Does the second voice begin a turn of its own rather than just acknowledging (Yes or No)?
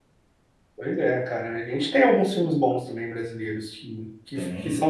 No